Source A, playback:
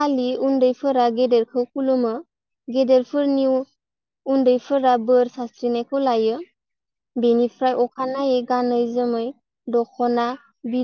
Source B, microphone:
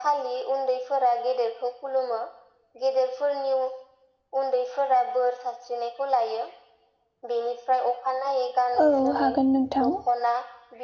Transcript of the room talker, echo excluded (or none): औ हागोन नोंथां